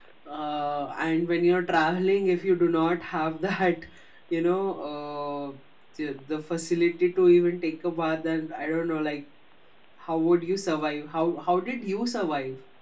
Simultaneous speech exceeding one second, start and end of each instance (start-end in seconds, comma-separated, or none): none